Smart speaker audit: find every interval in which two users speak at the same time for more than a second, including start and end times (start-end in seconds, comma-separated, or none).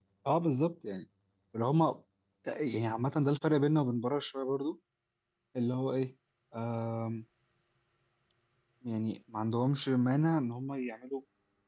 none